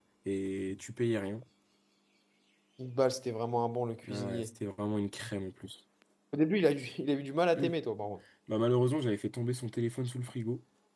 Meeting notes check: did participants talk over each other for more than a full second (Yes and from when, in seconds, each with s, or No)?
No